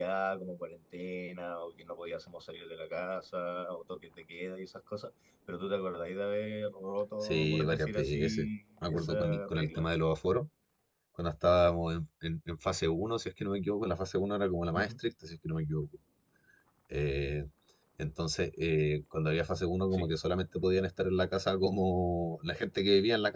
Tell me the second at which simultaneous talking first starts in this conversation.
7 s

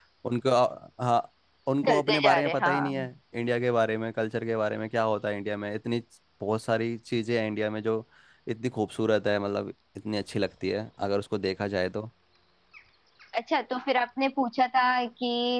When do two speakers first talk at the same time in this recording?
2 s

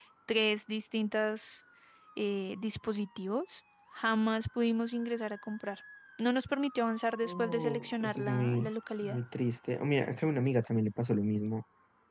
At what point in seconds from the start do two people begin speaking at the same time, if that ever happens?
7 s

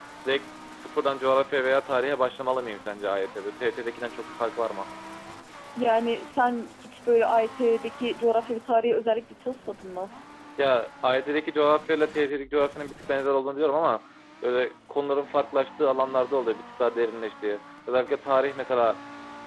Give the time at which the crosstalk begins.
none

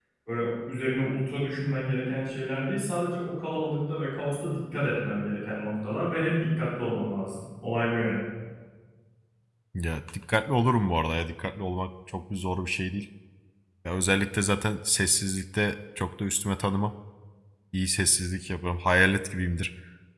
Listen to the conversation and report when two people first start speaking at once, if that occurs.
none

